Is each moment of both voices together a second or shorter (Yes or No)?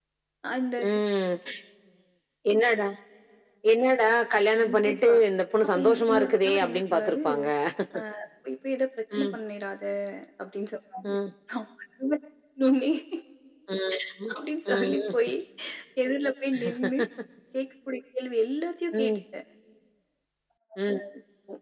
No